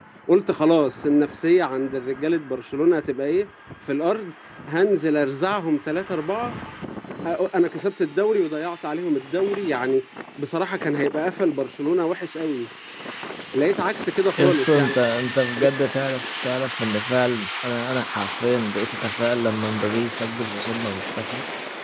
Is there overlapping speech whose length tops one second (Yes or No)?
No